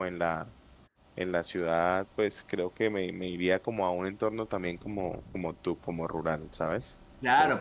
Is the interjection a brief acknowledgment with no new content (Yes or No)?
No